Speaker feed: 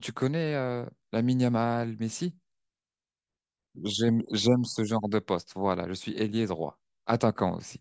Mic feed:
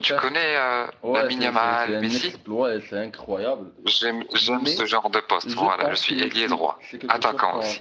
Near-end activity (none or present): present